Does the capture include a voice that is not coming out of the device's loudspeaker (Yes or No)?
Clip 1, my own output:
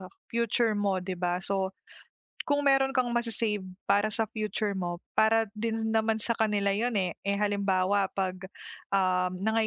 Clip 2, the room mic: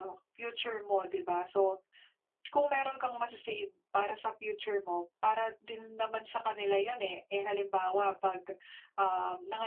No